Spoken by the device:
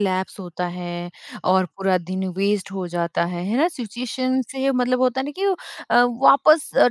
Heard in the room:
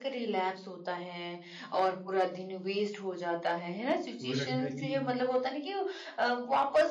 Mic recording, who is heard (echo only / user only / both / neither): both